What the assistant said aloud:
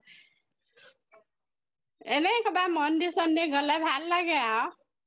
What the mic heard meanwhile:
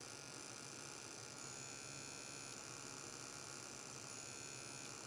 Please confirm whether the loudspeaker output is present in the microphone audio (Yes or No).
No